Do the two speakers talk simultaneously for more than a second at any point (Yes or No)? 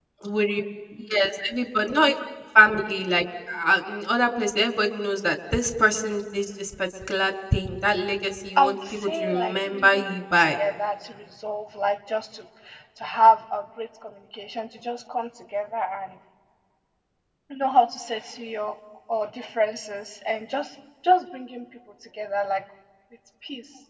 Yes